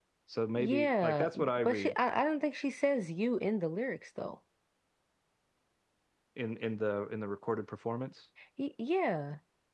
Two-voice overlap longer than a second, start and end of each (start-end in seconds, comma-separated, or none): 0.6-1.9